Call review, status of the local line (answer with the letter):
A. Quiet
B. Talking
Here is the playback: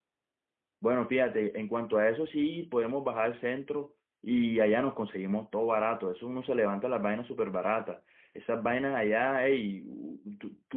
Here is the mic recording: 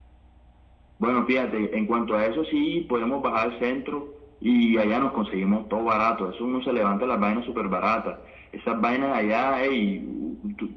A